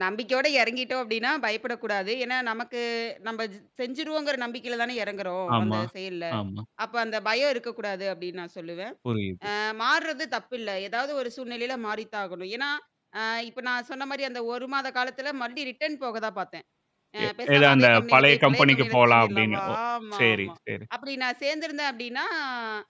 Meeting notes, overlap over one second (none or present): present